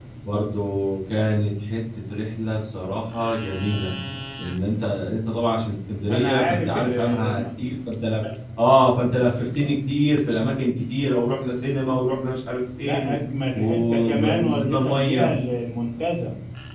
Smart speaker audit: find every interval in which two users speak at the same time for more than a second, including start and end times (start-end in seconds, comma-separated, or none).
6.1-7.4, 13.5-15.3